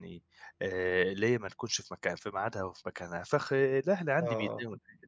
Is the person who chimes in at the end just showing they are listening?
Yes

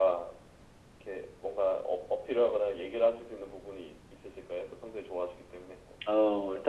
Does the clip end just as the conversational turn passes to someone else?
Yes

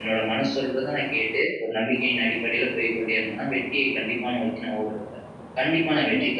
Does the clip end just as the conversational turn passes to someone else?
Yes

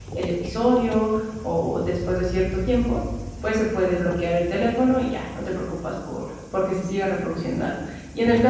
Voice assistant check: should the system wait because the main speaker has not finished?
Yes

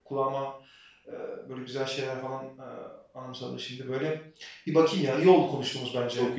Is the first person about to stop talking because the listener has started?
Yes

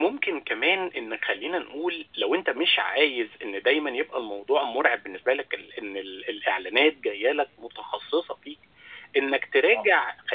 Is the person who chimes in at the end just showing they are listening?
Yes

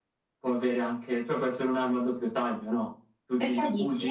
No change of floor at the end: Yes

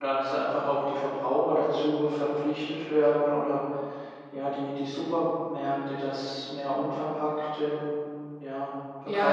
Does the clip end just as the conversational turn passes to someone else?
Yes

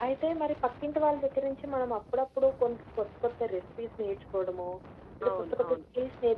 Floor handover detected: No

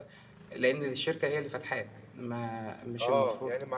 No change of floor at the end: No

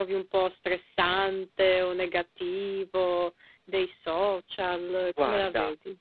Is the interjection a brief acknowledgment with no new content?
No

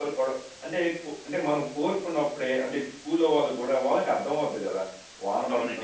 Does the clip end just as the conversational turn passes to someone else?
No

